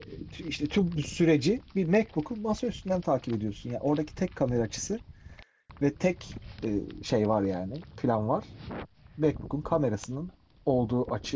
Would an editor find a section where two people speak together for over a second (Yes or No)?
No